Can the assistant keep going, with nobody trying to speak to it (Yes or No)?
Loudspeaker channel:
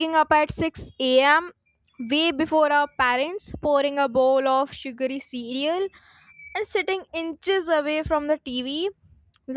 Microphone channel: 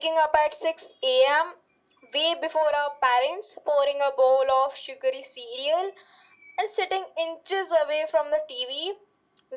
Yes